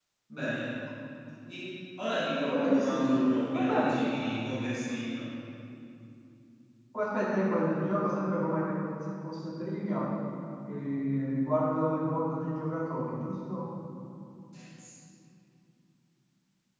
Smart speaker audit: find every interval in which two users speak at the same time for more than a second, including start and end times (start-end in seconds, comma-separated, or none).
2.4-4.0